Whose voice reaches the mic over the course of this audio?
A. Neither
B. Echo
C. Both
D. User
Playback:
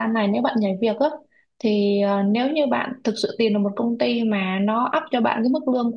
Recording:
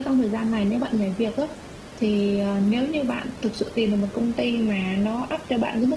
B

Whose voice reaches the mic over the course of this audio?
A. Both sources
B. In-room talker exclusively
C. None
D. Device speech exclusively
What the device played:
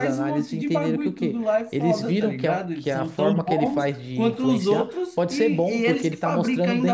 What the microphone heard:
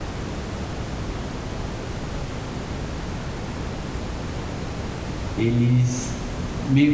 B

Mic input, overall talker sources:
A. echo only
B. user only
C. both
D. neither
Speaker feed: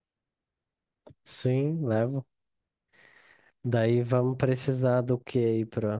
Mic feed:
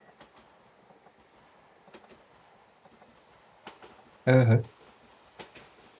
B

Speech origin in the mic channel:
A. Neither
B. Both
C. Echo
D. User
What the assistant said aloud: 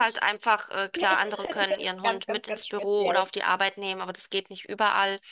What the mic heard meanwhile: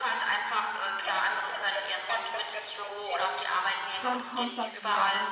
B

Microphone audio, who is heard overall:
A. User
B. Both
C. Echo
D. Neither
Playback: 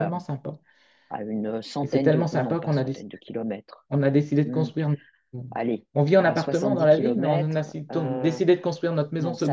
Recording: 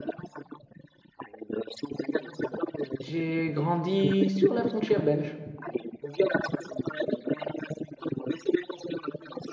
B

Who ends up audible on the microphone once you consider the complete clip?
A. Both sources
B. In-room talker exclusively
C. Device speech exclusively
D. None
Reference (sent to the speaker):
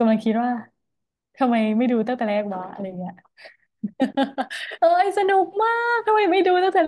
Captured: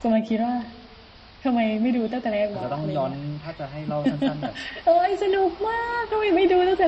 A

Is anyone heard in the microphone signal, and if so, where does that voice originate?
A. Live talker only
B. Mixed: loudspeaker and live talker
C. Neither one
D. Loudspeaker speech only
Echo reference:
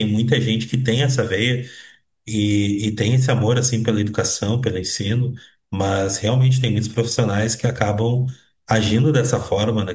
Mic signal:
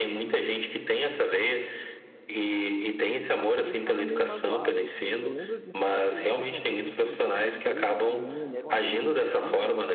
B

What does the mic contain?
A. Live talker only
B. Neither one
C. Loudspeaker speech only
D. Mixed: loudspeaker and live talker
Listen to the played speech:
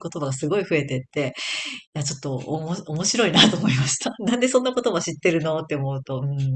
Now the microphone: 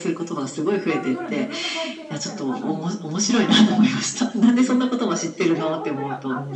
D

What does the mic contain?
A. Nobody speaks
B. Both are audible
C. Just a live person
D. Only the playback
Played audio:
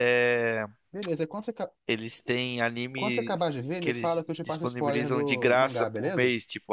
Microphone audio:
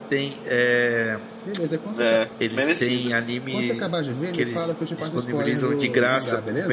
B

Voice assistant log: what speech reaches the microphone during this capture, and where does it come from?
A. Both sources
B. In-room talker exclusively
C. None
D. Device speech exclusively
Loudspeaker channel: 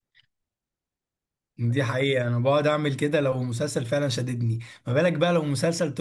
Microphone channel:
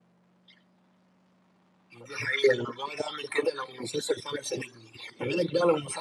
D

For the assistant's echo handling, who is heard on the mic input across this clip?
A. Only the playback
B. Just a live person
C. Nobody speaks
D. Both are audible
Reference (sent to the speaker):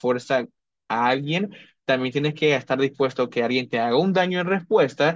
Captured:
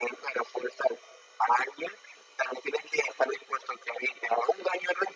A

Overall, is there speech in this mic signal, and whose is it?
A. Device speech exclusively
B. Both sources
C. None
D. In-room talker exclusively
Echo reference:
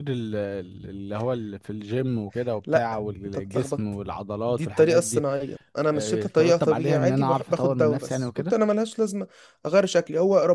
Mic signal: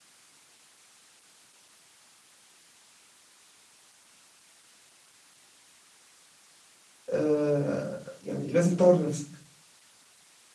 D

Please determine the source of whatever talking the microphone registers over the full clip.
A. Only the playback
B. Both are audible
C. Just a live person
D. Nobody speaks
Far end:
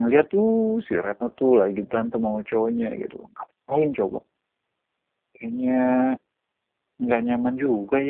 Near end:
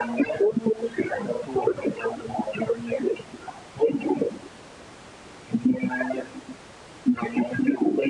A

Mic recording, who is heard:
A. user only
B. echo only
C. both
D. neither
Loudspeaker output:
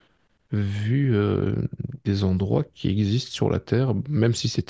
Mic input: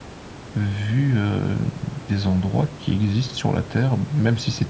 B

